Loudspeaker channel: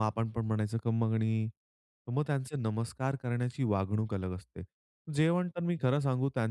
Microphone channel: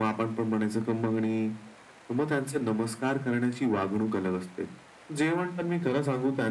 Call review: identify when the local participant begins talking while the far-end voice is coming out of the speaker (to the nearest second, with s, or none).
none